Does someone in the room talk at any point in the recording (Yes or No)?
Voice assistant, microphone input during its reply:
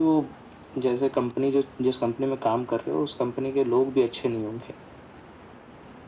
No